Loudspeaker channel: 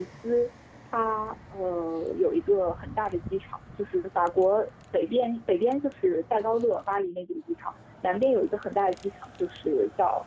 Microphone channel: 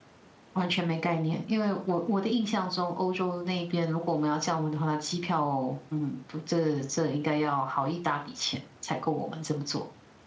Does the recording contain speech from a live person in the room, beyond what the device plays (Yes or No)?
Yes